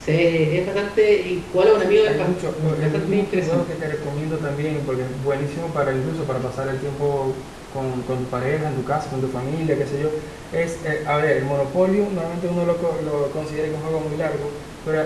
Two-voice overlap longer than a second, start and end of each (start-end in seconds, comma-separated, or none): 1.8-3.6